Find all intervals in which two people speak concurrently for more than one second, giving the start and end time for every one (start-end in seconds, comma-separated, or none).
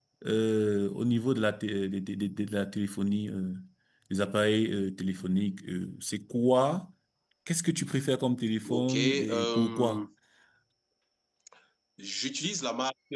8.7-10.0